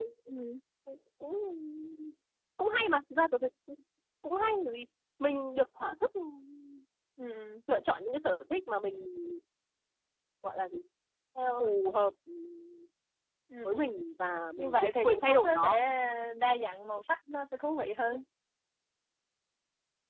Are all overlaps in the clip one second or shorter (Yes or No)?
No